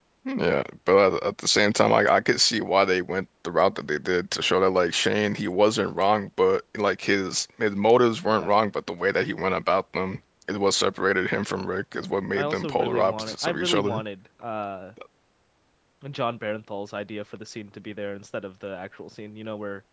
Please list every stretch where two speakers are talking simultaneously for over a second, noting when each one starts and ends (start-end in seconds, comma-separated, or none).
12.0-14.0